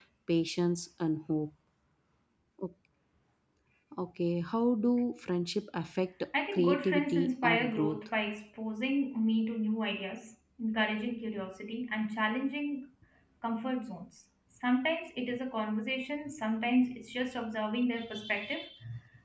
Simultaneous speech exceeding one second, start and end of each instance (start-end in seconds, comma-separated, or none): 6.5-8.0